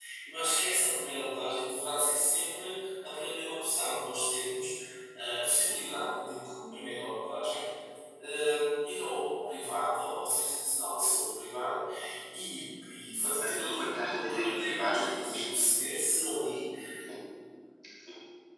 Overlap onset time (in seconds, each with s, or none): 13.4 s